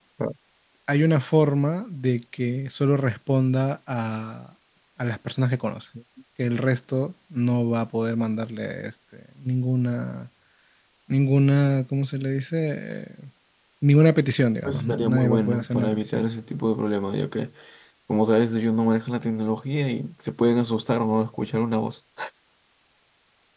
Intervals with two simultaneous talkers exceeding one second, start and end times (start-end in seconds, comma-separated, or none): 14.6-16.2